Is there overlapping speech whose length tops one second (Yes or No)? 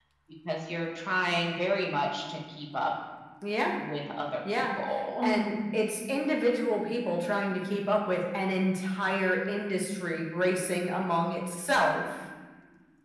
No